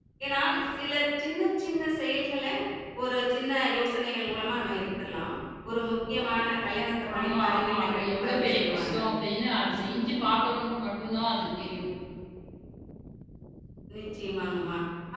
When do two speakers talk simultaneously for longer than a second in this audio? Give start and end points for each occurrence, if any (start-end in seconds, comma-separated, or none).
7.2-8.9